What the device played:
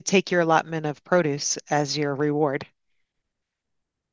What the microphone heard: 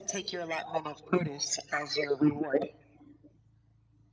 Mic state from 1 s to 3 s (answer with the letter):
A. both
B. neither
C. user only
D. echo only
D